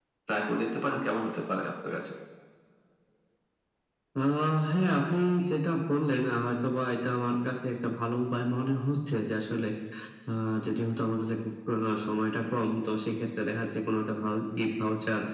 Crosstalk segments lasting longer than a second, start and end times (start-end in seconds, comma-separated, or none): none